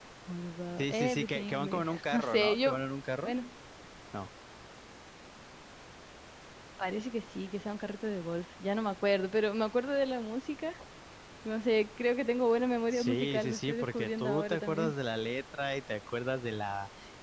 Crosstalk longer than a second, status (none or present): present